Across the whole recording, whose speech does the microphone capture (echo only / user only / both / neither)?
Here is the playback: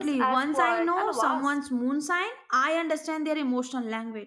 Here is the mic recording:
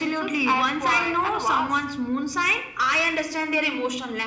echo only